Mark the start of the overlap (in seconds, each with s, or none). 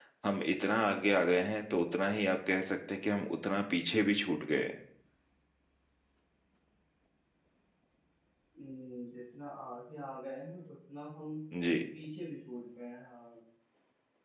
none